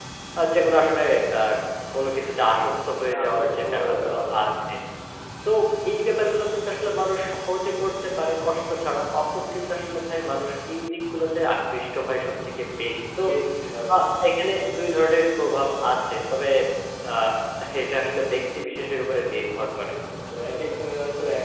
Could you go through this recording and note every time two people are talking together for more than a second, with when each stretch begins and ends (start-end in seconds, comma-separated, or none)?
3.2-4.4